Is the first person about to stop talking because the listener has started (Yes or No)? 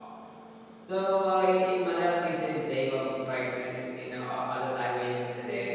No